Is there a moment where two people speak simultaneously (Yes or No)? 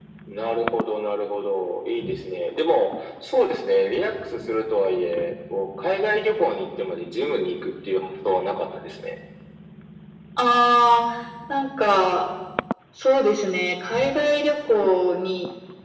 No